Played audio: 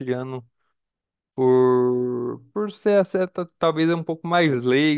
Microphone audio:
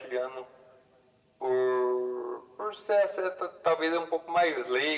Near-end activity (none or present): none